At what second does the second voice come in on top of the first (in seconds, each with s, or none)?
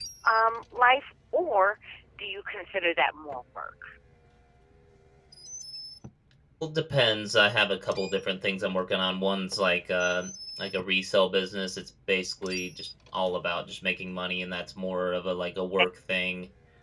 none